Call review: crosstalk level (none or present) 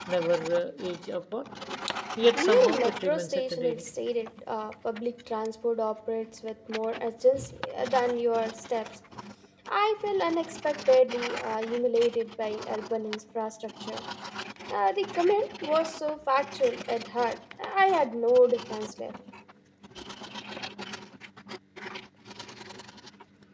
present